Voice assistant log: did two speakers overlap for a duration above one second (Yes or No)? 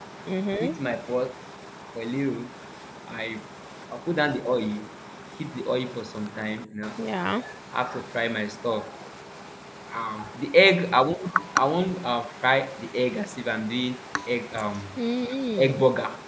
No